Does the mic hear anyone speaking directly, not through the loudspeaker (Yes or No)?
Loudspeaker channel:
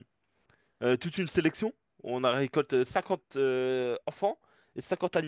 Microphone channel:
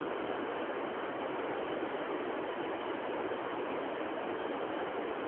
No